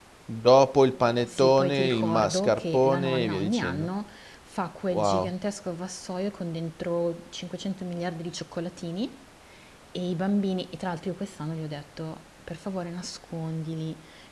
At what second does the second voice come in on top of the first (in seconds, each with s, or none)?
1.2 s